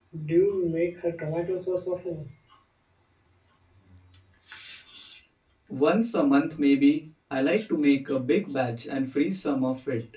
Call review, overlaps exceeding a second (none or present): none